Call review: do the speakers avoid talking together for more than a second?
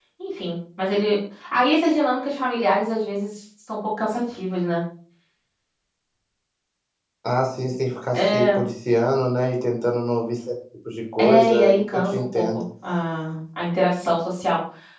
No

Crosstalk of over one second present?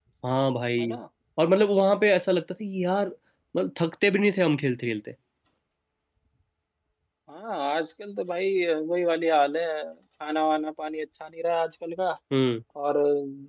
No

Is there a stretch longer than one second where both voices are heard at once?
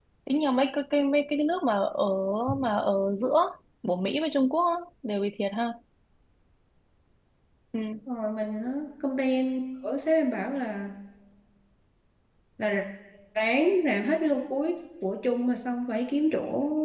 No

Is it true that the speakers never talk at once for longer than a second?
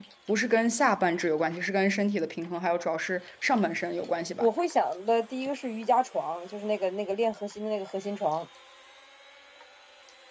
Yes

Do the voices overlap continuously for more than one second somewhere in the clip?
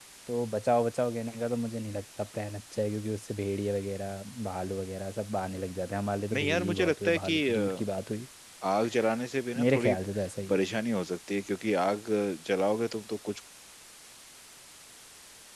Yes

